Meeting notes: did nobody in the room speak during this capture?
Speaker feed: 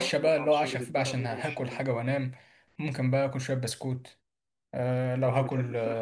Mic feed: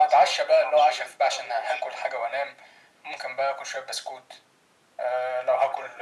Yes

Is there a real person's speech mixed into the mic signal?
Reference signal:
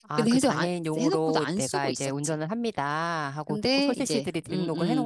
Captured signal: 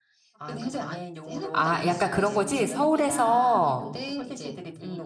Yes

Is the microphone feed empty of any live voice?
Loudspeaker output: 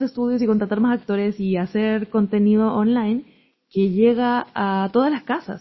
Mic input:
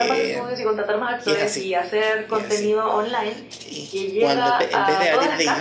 No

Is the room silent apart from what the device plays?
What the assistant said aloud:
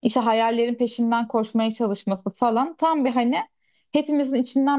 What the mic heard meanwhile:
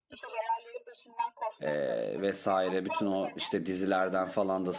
No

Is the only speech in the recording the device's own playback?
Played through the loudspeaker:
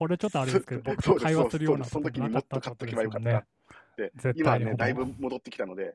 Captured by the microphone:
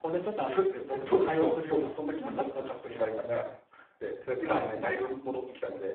Yes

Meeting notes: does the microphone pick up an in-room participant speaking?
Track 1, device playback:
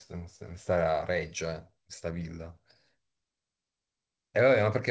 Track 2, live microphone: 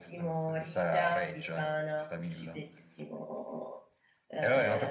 Yes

